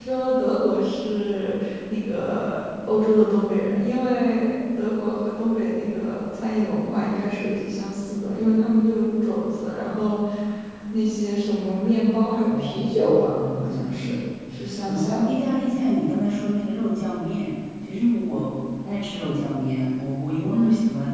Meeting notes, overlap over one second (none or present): present